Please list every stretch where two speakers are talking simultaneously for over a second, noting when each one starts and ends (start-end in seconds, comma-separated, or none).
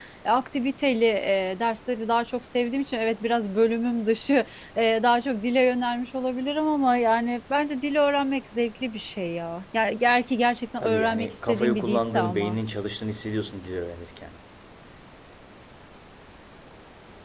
10.8-12.6